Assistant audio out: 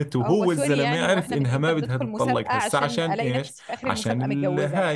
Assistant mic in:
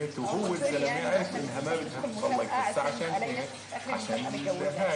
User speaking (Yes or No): No